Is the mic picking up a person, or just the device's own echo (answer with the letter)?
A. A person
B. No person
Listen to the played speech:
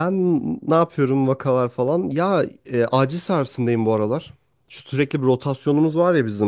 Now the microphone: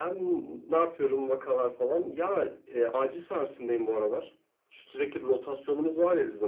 B